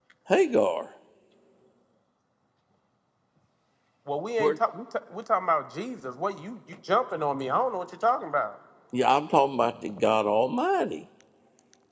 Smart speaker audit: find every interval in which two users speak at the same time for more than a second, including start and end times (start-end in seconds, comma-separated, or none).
none